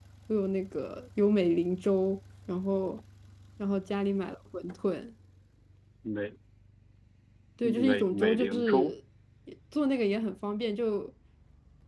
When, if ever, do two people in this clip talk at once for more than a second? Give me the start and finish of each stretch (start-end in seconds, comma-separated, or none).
7.6-8.9